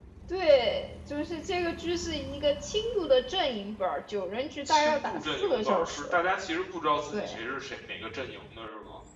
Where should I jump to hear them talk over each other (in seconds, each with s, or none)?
4.7 s